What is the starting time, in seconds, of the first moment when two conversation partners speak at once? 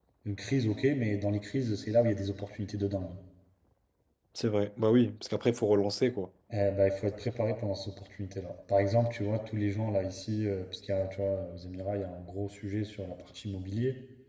none

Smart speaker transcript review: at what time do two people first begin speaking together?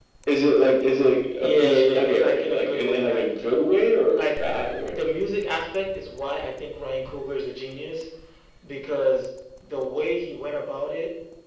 1.4 s

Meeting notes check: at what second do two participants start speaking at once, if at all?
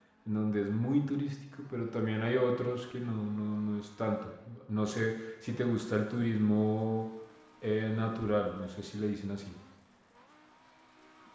none

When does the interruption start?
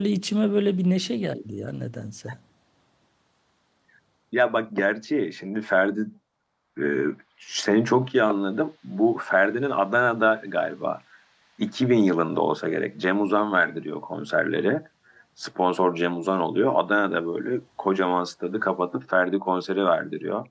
none

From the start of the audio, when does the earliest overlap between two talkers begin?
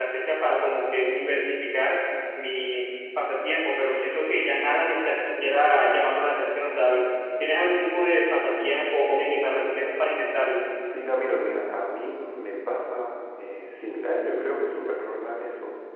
none

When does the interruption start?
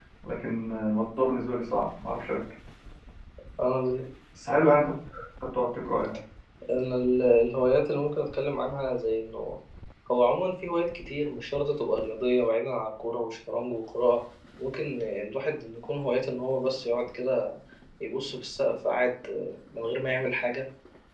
none

